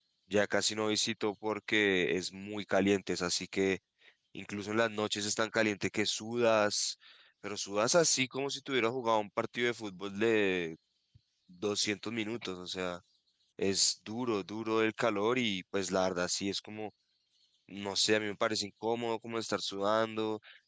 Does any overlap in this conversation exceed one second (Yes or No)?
No